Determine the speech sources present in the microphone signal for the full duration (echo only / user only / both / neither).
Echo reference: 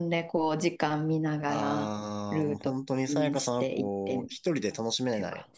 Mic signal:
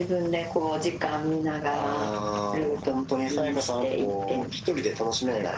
echo only